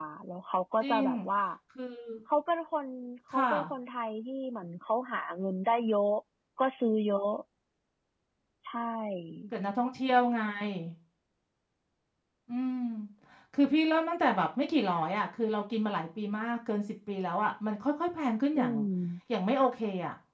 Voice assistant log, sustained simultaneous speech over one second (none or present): none